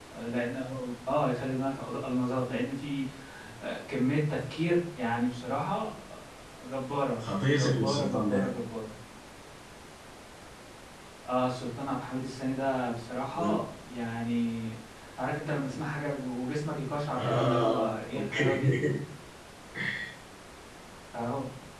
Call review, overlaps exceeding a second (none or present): present